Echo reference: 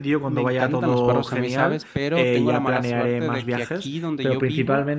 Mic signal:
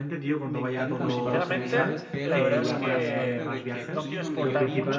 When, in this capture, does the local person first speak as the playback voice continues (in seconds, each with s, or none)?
0.9 s